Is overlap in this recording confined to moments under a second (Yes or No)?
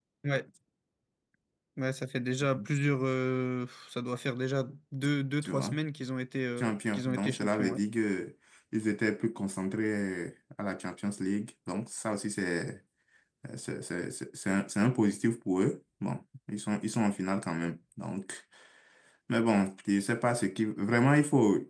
No